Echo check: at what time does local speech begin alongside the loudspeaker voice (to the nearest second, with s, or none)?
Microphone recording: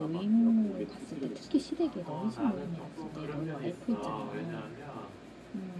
2 s